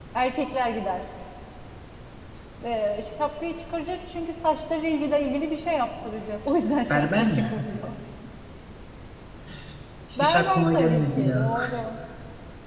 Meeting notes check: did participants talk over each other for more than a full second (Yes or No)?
Yes